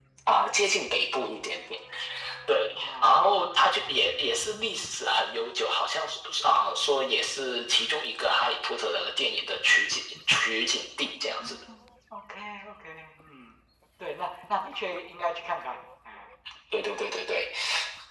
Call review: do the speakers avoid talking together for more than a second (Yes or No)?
Yes